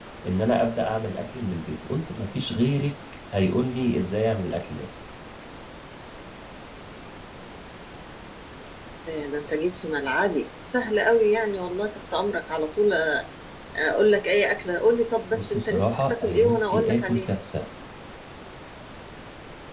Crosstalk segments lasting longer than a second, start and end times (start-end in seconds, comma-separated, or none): 15.3-17.3